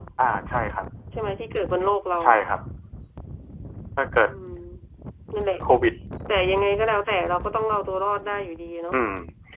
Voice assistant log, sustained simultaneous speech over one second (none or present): none